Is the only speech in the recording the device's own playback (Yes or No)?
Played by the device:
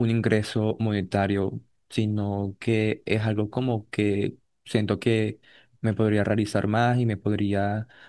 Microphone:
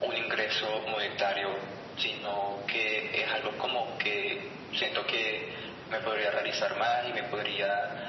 Yes